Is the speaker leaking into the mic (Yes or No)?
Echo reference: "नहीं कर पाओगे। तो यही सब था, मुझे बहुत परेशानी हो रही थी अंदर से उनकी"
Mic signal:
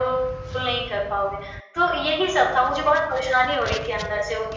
Yes